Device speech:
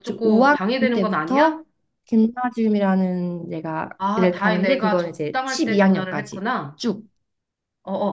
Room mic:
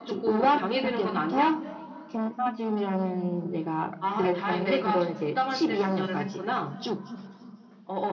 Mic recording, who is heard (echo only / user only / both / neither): echo only